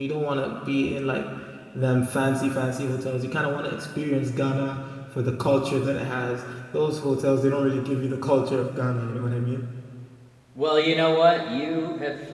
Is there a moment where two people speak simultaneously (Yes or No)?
No